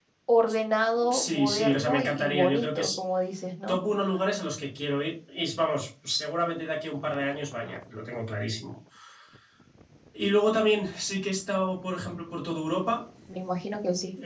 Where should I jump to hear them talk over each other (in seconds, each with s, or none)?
1.1 s